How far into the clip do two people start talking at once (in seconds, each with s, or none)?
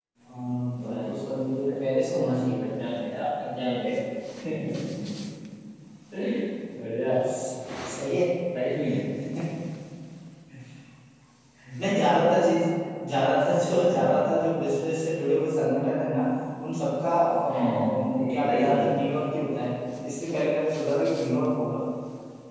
0.9 s